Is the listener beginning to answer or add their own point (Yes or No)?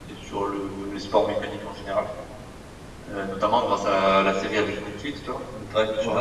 No